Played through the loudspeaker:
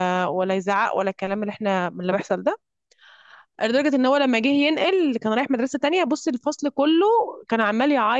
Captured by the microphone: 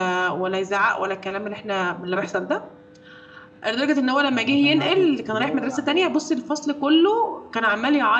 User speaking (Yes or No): Yes